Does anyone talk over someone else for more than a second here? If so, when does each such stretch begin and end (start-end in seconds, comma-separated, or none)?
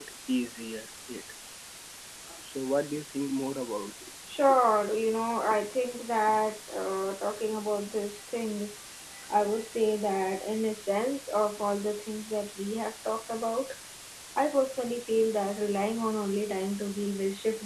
none